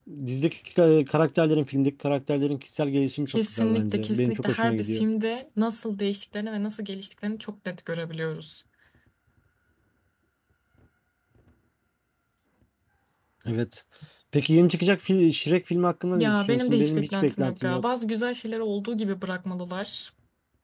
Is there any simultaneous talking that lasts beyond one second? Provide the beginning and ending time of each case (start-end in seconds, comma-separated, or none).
3.3-5.0, 16.1-17.8